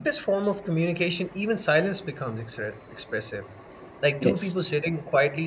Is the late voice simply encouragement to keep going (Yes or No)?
Yes